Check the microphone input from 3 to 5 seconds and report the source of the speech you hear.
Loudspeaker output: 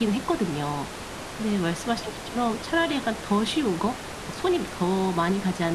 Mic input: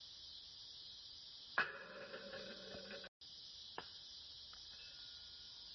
neither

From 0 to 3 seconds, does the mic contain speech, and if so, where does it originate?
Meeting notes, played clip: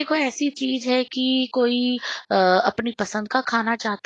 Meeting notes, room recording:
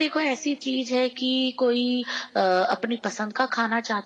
echo only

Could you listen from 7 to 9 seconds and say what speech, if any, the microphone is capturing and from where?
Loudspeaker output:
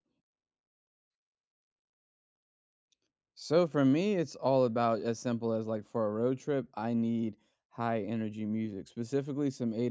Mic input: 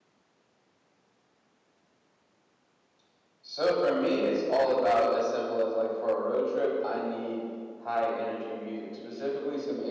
echo only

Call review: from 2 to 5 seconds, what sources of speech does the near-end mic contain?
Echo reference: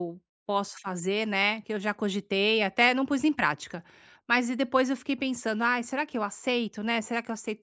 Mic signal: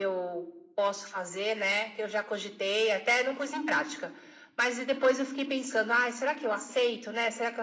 echo only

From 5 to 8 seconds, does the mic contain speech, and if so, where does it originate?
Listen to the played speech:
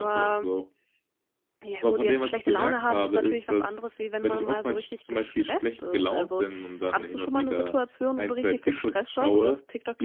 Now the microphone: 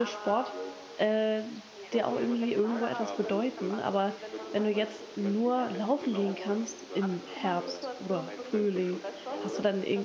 both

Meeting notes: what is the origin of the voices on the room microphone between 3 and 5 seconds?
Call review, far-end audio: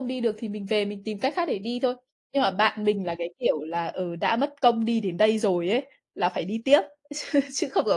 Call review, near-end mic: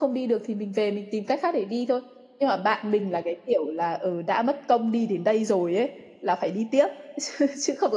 echo only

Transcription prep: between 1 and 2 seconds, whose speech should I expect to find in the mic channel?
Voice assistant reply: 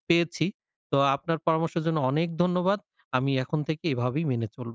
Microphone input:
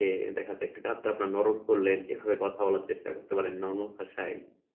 user only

